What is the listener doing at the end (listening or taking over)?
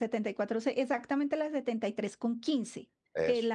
listening